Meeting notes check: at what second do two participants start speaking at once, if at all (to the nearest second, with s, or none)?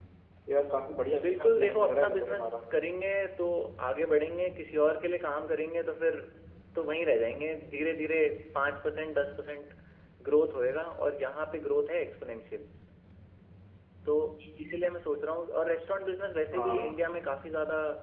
1 s